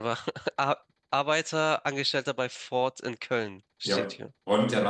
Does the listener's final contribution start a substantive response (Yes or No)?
Yes